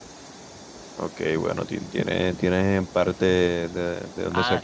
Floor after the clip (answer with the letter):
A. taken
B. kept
A